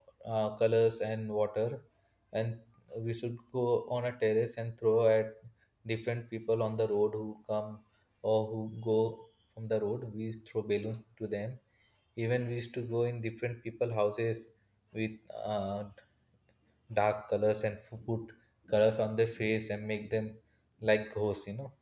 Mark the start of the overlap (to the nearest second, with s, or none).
none